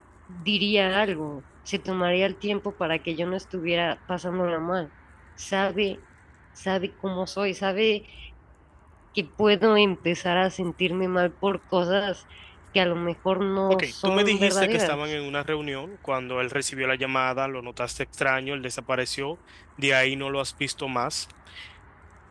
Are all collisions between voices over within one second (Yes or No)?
No